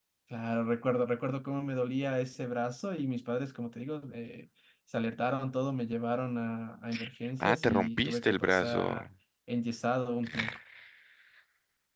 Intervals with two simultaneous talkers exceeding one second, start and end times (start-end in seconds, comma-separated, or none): 7.4-8.9